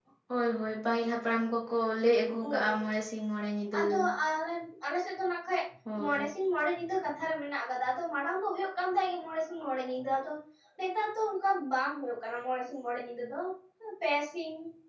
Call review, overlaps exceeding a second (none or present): none